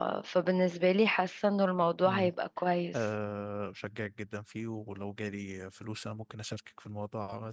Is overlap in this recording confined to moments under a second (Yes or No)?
Yes